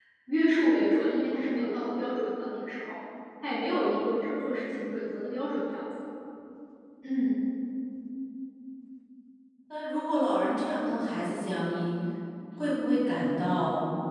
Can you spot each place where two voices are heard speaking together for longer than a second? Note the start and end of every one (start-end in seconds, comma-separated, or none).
none